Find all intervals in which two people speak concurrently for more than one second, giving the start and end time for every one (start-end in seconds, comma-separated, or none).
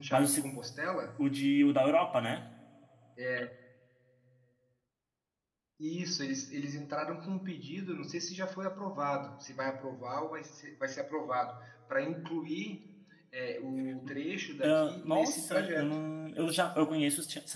14.7-15.9